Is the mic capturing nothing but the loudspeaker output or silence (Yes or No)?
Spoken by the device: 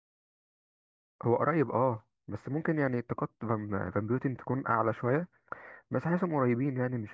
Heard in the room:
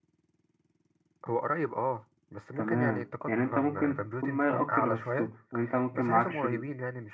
No